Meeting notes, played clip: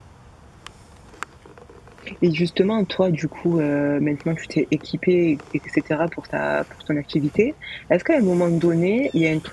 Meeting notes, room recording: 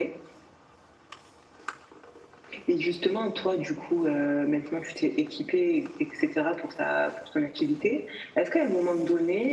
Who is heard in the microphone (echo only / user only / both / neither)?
echo only